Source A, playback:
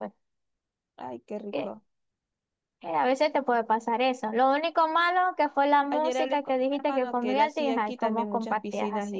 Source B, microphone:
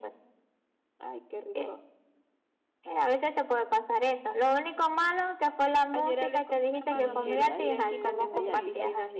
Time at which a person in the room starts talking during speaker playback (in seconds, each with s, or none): 6.9 s